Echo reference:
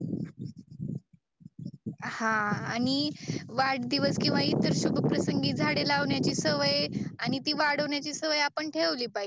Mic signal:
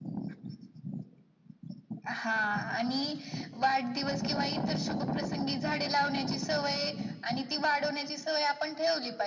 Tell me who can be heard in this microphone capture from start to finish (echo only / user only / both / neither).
echo only